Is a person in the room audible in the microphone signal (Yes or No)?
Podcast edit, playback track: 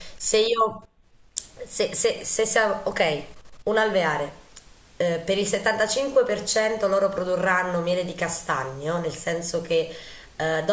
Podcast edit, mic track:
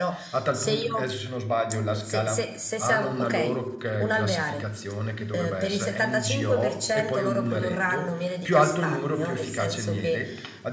Yes